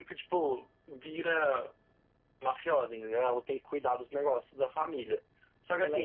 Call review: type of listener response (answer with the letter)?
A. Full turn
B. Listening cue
B